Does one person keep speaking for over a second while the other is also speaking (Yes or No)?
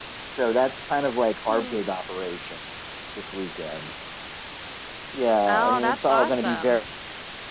Yes